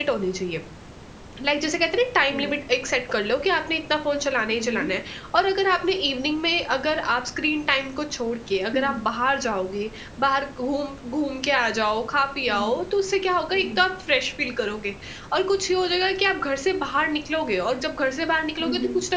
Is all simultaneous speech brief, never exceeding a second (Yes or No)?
Yes